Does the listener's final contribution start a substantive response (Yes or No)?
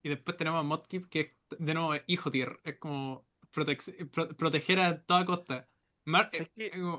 No